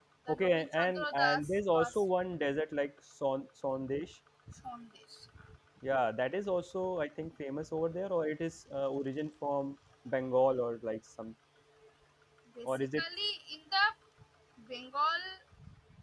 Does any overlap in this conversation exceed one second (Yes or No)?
Yes